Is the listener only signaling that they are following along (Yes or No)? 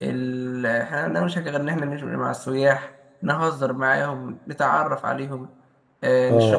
Yes